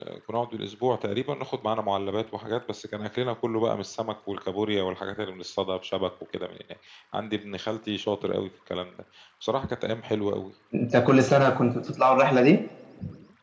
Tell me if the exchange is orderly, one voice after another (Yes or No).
Yes